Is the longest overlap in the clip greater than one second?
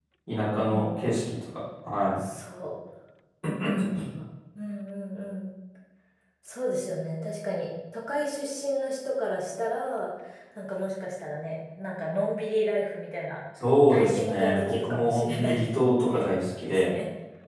Yes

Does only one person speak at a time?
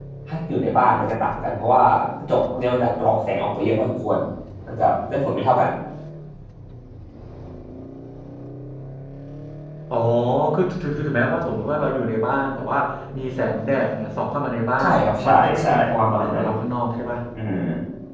No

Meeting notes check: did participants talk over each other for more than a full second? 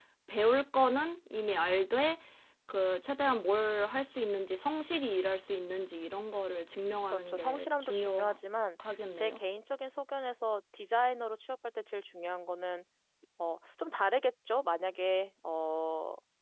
Yes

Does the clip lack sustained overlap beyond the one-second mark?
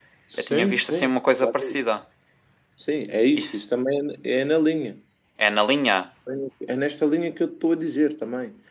No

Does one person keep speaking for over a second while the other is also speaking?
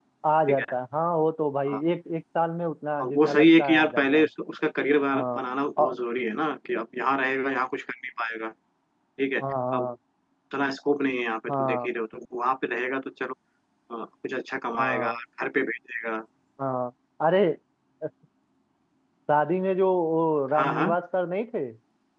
Yes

